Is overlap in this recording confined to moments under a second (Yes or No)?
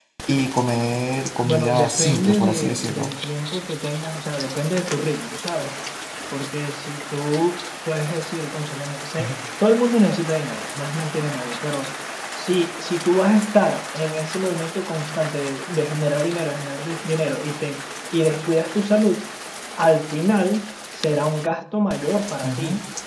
No